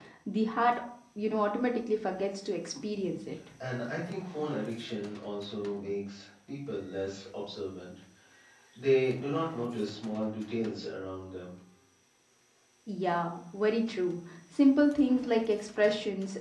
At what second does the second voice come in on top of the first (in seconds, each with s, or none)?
none